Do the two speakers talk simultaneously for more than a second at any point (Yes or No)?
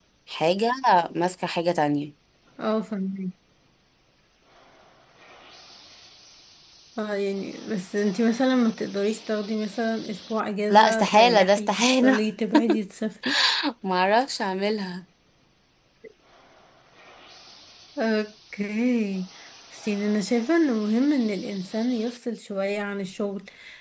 Yes